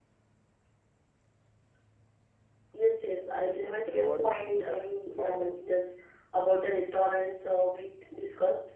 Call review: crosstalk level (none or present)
present